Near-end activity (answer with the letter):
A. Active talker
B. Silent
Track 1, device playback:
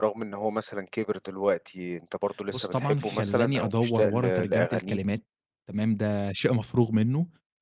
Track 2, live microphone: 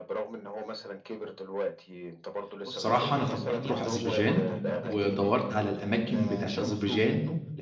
A